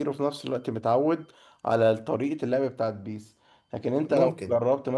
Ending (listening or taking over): listening